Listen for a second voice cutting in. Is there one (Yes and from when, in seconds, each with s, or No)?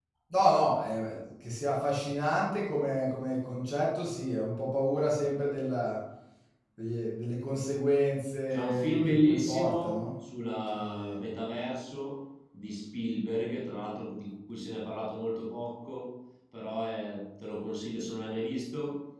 Yes, from 8.5 s